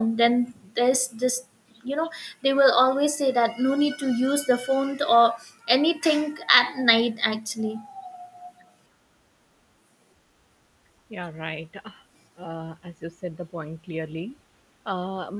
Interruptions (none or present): none